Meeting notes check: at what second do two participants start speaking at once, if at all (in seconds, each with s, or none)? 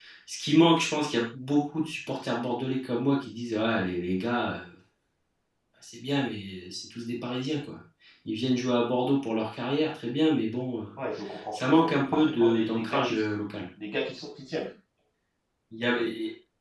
11.7 s